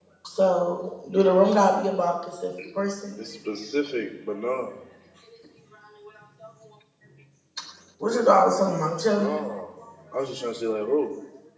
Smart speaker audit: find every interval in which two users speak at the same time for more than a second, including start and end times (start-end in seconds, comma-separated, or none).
none